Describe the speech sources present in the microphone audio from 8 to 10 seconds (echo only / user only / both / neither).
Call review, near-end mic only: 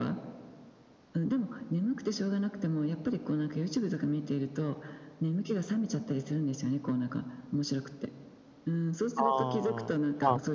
both